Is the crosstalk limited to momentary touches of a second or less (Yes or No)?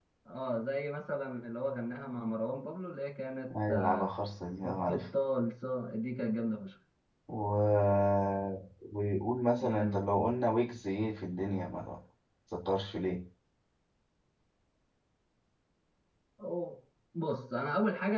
Yes